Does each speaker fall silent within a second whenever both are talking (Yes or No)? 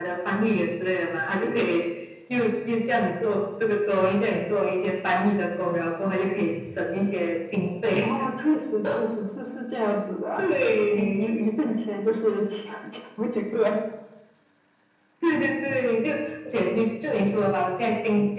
Yes